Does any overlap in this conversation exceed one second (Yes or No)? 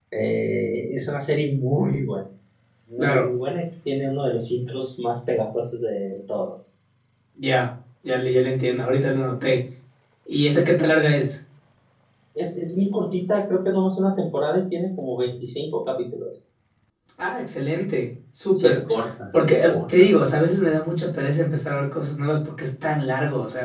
No